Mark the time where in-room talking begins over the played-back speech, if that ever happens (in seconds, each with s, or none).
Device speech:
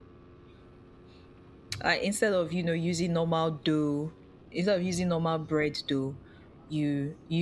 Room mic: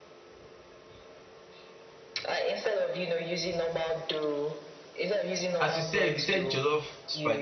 5.6 s